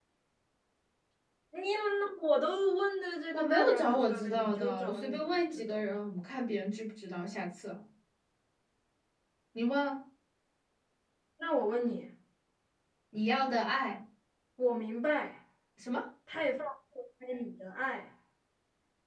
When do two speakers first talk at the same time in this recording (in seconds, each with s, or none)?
3.3 s